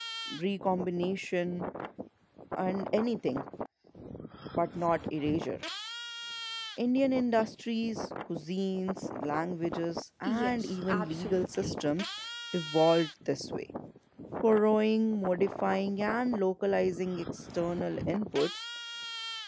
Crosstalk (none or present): present